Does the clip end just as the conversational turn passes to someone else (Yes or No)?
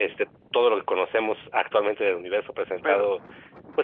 No